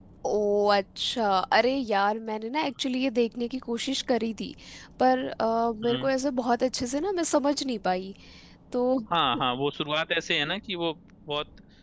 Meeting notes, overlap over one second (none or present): none